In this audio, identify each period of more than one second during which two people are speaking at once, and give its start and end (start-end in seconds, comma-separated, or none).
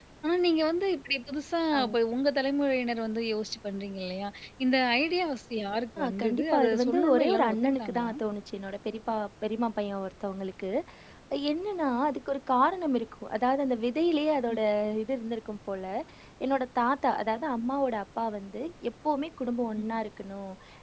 6.0-8.1